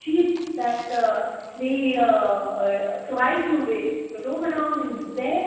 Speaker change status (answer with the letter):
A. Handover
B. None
A